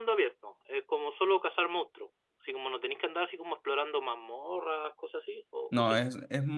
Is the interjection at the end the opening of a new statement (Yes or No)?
Yes